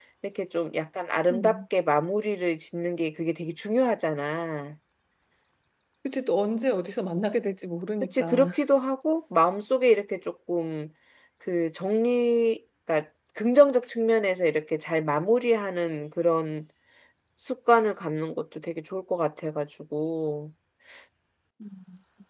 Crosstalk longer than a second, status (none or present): none